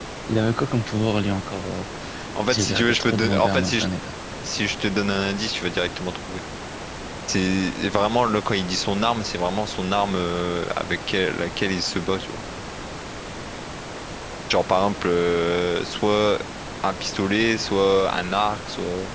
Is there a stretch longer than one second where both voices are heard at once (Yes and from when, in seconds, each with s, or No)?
Yes, from 2.5 s